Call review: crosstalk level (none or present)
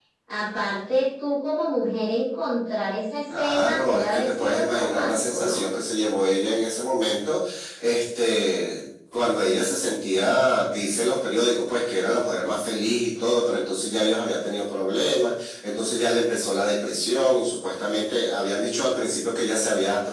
present